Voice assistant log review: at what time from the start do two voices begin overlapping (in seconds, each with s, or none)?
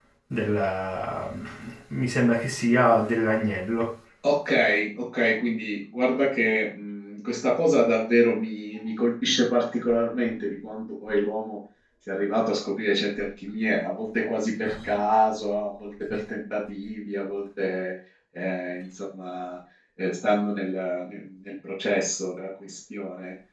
none